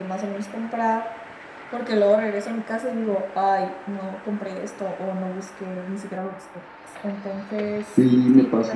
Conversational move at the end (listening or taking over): taking over